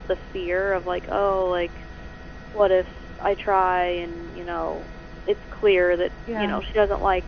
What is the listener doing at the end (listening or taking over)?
listening